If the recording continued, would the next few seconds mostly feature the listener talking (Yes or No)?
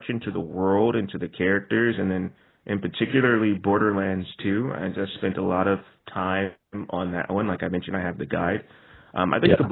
No